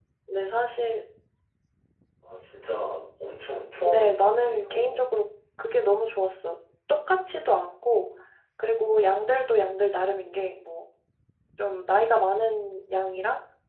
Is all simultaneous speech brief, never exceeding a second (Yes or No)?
No